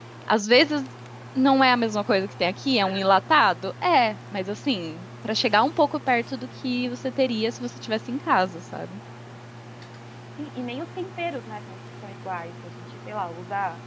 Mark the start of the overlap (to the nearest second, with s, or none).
none